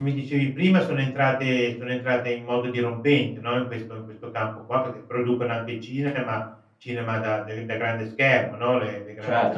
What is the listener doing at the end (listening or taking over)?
taking over